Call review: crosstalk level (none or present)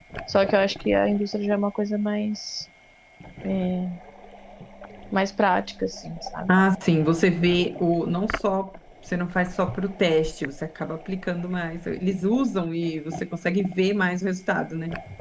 none